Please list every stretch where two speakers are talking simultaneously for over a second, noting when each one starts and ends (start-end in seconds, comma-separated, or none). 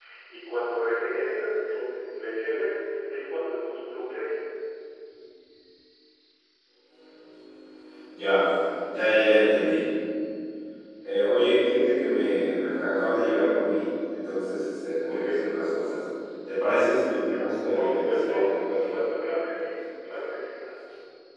17.7-19.0